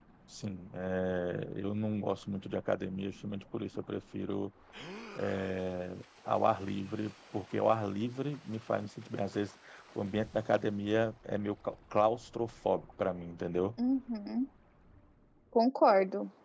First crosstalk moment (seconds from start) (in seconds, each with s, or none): none